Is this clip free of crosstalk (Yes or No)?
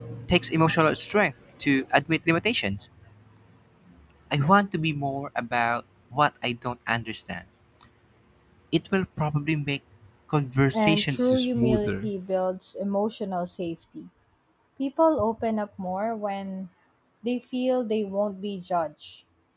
No